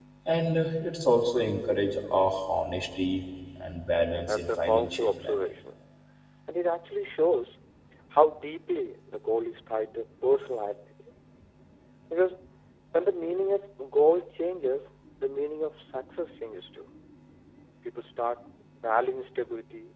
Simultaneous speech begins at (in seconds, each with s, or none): 4.0 s